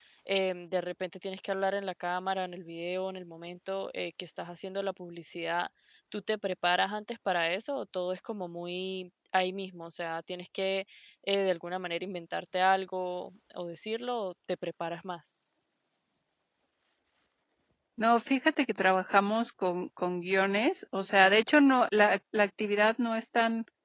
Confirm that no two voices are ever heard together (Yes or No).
Yes